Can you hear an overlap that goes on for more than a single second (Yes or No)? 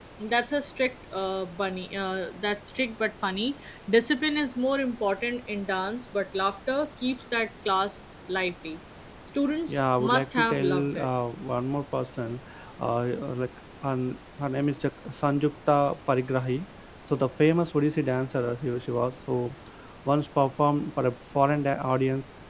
Yes